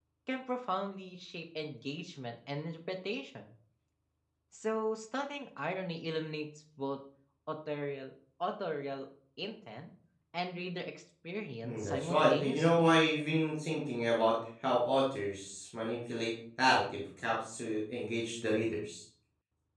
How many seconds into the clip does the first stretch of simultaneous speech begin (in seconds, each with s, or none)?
11.6 s